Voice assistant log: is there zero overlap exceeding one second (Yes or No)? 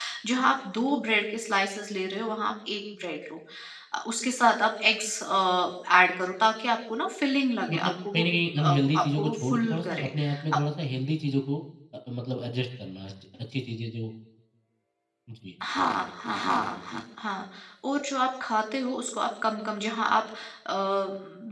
No